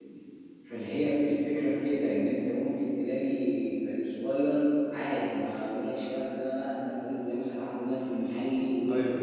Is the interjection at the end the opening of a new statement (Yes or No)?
No